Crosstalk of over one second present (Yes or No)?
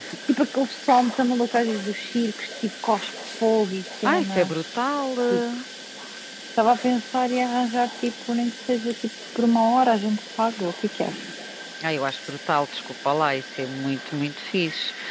No